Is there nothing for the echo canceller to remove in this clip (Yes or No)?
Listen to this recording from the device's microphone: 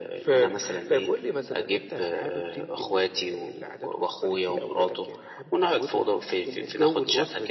No